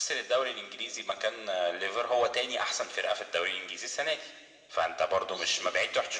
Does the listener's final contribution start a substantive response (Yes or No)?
No